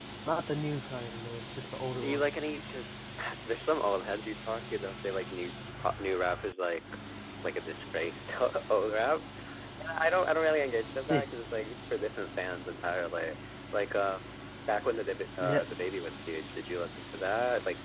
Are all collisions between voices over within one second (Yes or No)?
Yes